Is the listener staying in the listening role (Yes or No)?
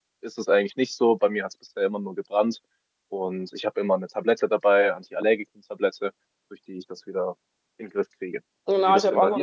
No